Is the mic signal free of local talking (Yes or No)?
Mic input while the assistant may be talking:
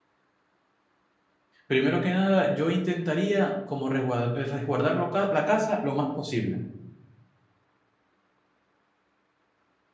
No